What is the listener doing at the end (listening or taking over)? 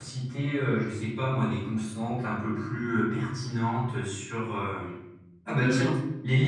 listening